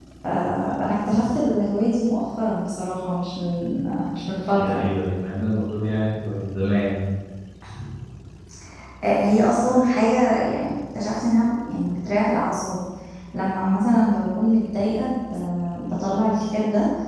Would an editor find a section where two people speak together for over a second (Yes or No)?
No